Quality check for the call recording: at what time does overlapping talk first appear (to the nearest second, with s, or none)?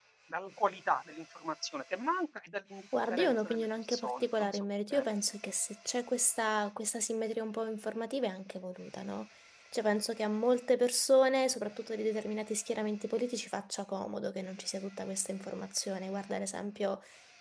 3 s